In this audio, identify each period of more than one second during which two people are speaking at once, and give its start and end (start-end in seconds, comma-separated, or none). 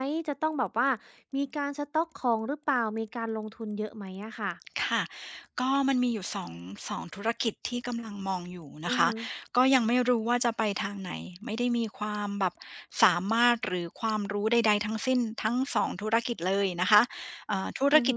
none